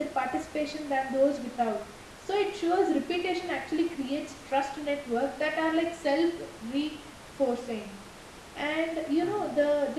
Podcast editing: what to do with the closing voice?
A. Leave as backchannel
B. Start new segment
A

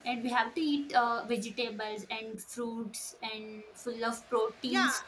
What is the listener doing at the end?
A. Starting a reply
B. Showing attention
A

